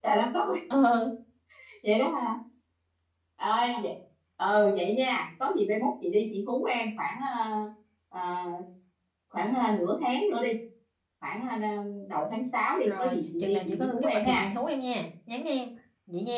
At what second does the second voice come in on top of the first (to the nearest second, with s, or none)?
13 s